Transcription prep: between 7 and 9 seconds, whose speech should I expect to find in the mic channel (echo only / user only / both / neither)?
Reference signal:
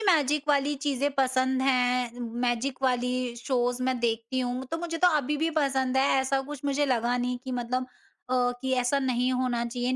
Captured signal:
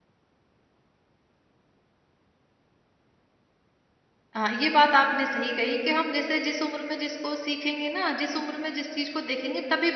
user only